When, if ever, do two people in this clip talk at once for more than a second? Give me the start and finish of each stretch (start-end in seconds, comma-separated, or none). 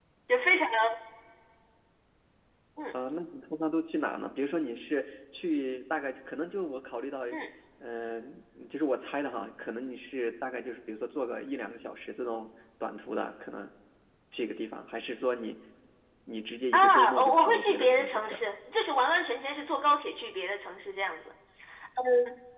16.7-18.5